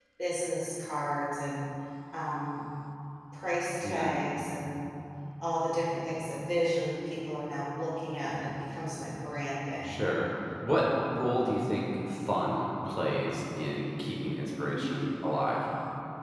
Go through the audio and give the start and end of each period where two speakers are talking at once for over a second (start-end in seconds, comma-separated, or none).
none